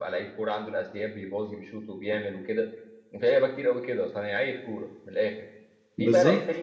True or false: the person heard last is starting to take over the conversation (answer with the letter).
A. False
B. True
A